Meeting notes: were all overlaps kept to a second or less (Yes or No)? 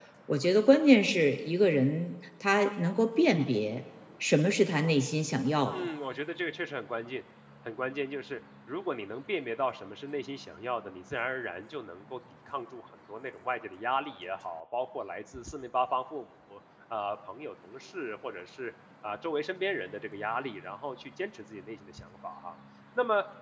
Yes